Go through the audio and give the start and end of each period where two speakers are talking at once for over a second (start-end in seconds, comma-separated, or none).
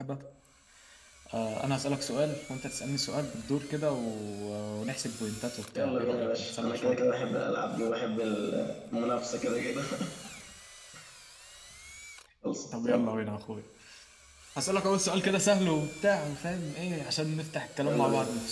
5.8-7.0